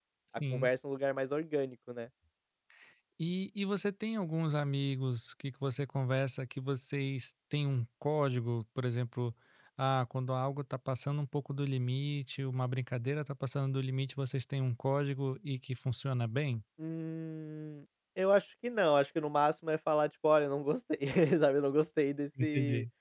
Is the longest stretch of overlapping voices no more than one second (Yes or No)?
Yes